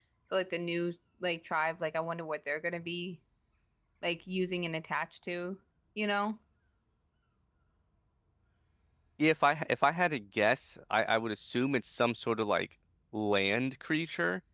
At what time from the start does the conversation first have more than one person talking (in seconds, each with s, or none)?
none